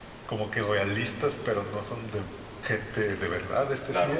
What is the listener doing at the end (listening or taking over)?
taking over